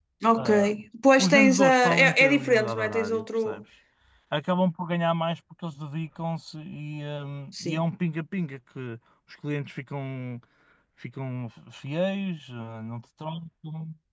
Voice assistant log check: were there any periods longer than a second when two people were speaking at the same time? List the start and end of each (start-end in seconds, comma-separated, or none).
1.2-3.6